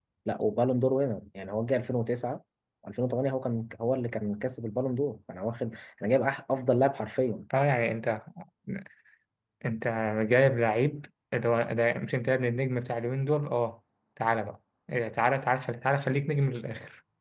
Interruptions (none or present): none